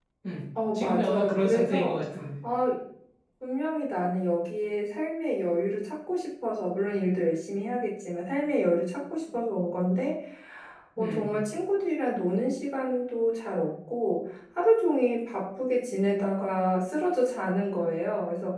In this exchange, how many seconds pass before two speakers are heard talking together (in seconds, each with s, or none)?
0.7 s